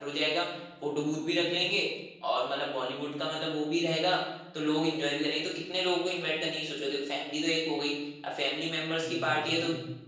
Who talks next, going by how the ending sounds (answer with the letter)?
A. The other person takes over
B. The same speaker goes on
B